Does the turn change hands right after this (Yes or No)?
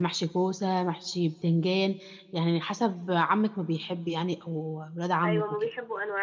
Yes